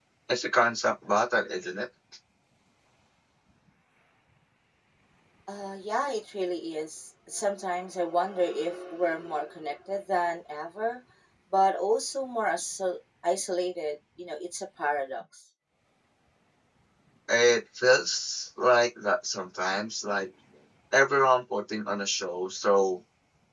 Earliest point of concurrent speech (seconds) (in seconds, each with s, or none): none